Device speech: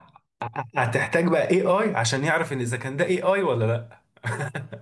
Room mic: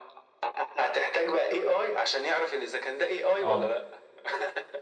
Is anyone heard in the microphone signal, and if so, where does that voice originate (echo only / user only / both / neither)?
both